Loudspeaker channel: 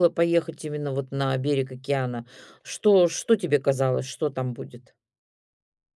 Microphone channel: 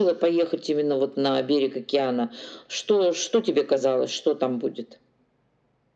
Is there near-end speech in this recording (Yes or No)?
No